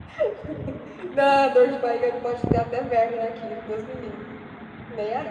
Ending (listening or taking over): taking over